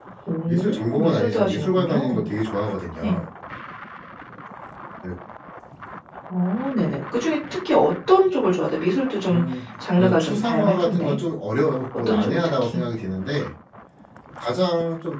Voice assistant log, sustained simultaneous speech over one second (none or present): present